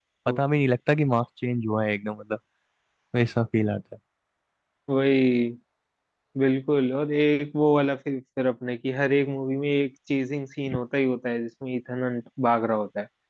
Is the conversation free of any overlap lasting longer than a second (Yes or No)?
Yes